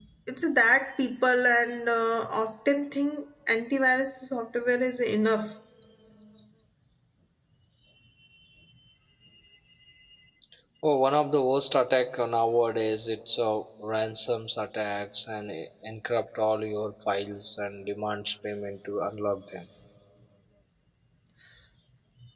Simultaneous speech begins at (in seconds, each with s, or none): none